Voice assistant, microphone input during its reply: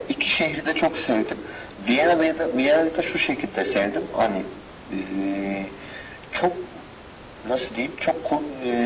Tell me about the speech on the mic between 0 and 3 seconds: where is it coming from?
echo only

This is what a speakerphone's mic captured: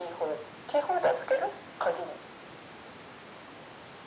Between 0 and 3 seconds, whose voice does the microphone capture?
echo only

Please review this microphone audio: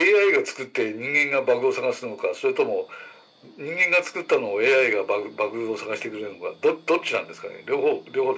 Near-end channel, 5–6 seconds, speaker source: echo only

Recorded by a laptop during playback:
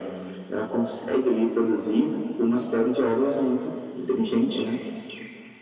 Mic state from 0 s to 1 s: echo only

